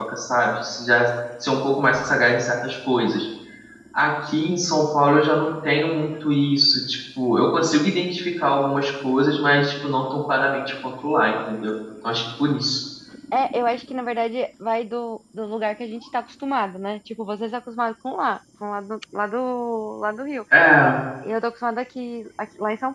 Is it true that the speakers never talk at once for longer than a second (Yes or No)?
Yes